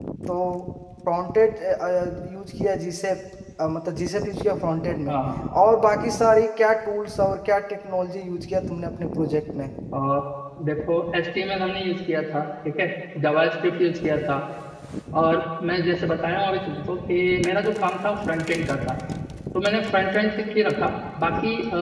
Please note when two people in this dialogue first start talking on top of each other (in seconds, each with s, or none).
none